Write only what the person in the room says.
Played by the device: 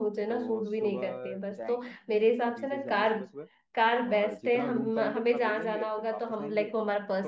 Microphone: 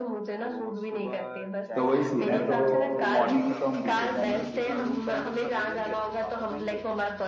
तो वही सीन है तो मॉर्निंग में तो हम बीचेस जाएंगे

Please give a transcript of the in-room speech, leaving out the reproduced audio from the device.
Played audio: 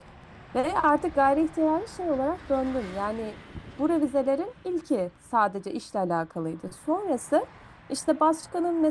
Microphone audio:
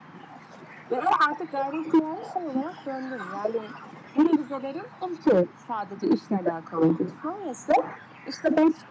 none

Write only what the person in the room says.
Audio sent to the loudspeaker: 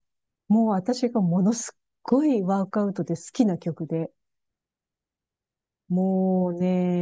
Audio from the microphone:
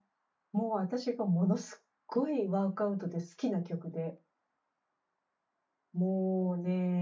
none

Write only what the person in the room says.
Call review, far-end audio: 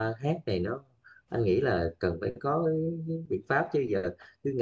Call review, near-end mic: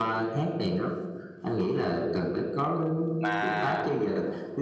mà

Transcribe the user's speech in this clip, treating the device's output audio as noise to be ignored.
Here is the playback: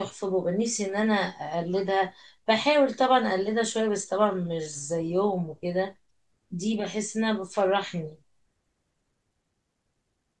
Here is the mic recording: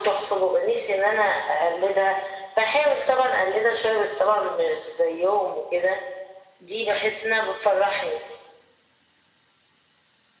none

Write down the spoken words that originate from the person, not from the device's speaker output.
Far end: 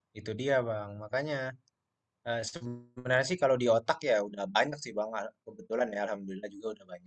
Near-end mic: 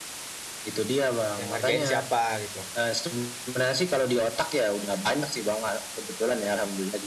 yang ngerjain siapa gitu.

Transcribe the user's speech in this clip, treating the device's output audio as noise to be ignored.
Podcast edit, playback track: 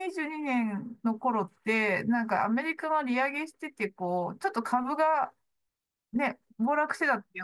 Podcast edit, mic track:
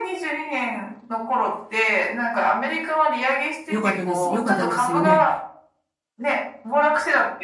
よかったです。よかったですよね。

